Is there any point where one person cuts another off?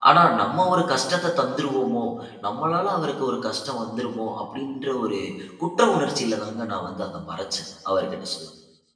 No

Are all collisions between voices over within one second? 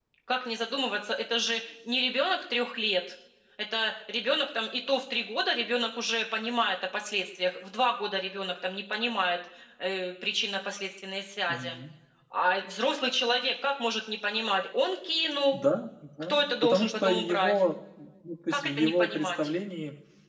No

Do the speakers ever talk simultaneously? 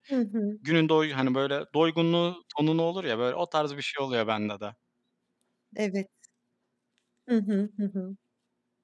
No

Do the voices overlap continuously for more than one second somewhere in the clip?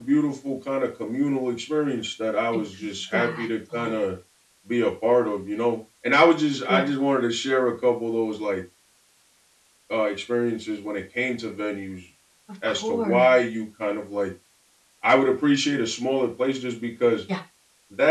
Yes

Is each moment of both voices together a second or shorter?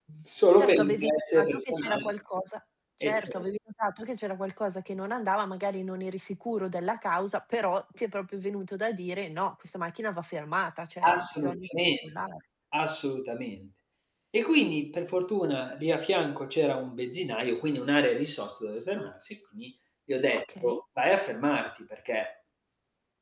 No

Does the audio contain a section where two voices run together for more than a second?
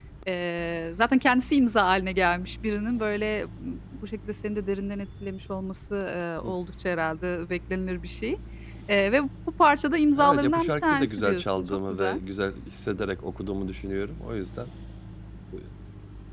Yes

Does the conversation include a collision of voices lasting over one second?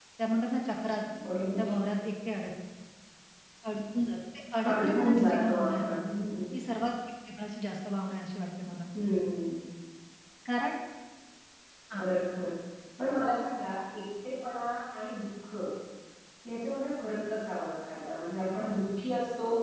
Yes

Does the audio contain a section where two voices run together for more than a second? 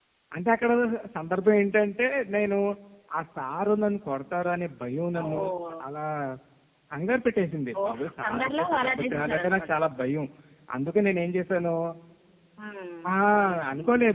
Yes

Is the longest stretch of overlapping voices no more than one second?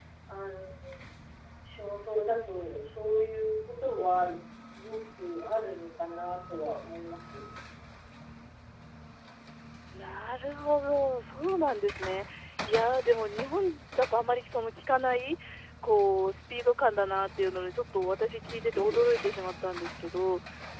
Yes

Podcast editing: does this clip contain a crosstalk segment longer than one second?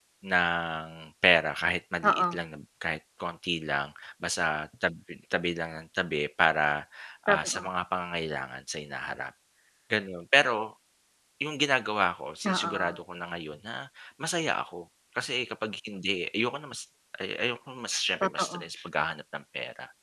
No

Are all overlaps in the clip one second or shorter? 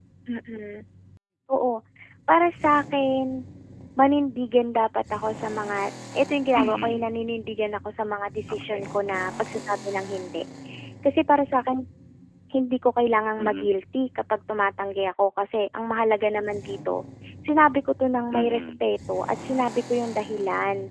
Yes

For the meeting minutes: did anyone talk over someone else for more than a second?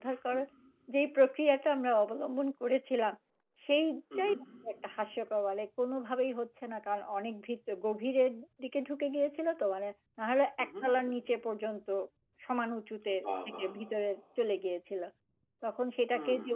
No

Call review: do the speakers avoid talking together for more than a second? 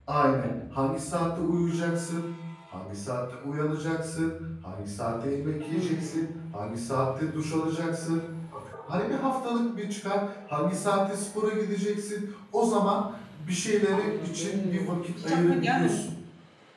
No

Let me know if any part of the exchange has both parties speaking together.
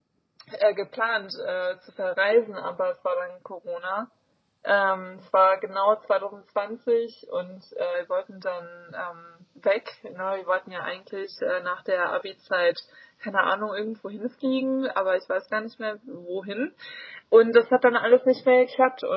No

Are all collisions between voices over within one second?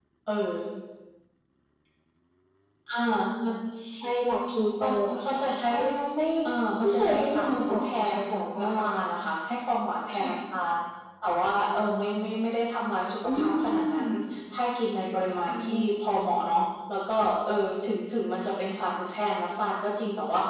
No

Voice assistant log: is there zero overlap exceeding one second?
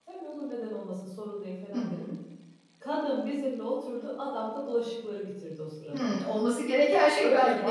Yes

